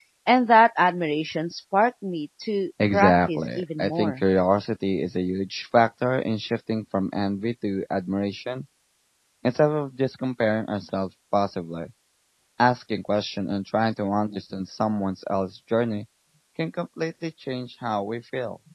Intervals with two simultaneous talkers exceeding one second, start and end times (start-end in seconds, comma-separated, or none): 2.9-4.2